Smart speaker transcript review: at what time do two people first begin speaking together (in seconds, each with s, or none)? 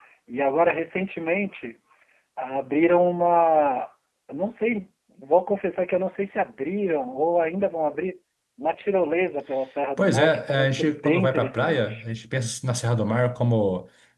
10.0 s